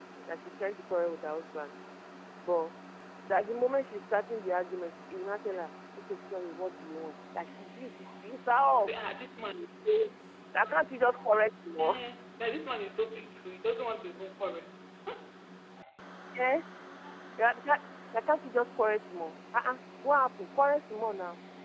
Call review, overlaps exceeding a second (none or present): none